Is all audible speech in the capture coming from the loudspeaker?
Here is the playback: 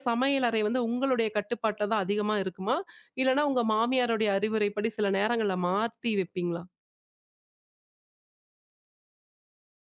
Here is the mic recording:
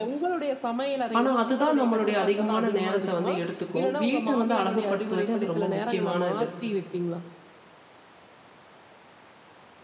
No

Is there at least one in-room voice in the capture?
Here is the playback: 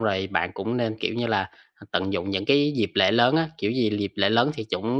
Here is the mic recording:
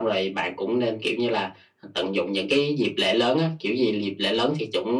No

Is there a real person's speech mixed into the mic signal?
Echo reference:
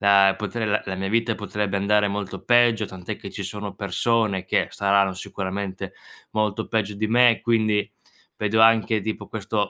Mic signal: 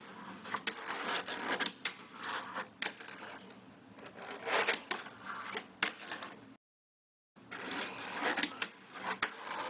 No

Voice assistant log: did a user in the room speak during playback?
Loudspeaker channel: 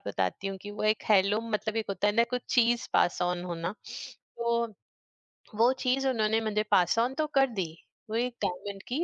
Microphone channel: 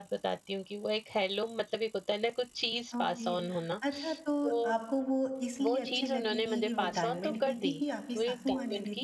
Yes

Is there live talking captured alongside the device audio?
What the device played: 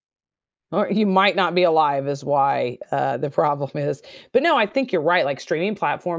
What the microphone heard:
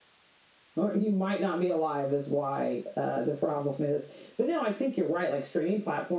No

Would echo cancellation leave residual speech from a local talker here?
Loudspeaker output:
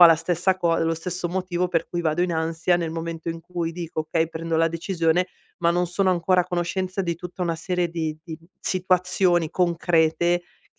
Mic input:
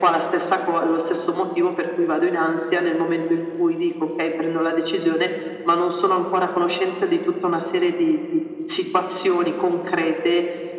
No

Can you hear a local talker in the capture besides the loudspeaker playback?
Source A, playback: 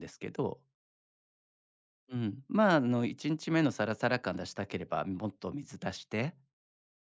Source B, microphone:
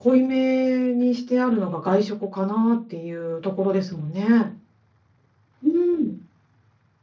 Yes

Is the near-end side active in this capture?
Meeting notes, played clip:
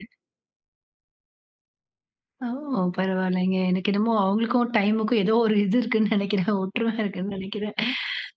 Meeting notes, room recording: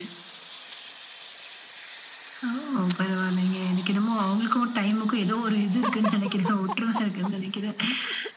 No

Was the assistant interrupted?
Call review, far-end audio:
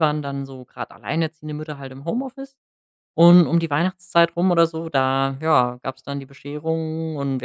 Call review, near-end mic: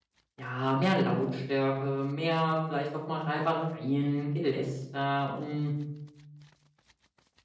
Yes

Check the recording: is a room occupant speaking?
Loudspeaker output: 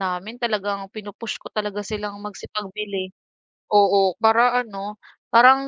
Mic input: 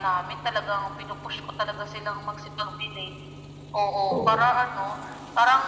Yes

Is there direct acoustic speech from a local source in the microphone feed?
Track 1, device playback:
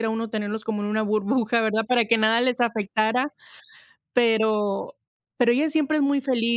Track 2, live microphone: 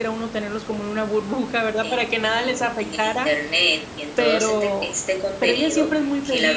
Yes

